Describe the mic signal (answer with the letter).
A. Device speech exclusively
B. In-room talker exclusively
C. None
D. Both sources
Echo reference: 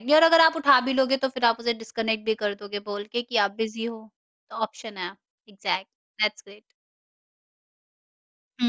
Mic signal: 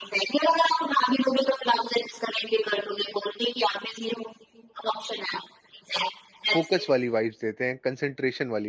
D